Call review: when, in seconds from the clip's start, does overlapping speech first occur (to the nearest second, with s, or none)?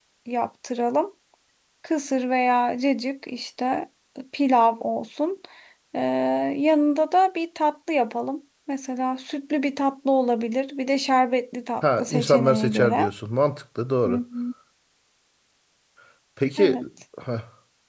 12 s